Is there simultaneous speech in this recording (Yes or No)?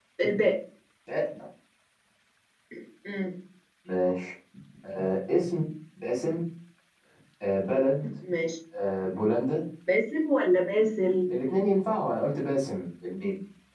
No